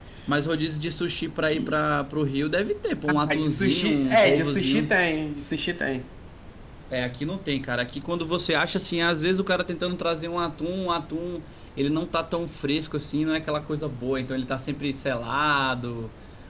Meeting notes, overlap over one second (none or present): present